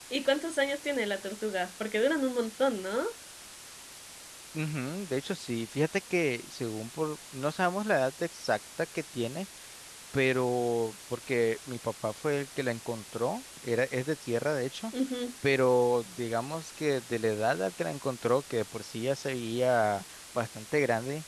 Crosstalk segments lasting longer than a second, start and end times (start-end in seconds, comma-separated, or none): none